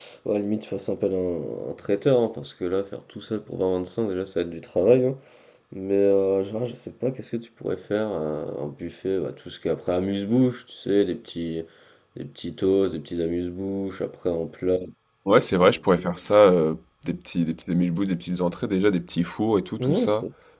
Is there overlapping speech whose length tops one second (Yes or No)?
No